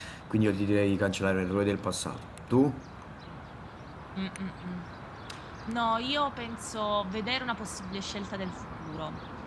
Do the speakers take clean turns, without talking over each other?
Yes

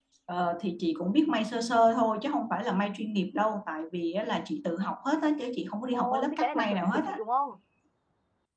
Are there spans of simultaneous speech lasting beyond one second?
Yes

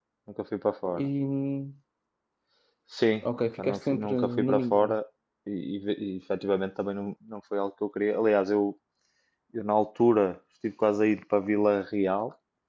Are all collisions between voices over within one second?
No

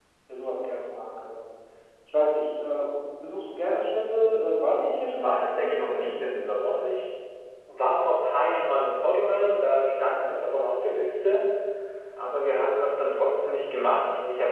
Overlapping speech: Yes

